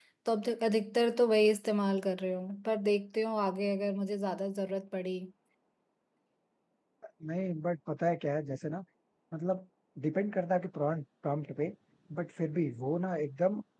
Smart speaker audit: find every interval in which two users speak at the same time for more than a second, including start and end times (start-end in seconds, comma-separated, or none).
none